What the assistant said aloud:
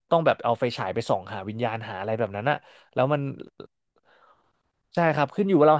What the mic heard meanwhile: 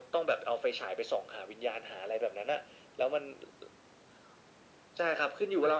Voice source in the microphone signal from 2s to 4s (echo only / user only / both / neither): echo only